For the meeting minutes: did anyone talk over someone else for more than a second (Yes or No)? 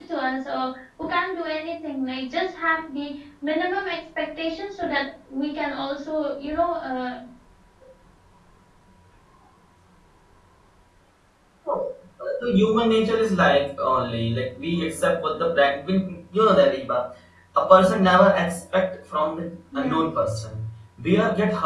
No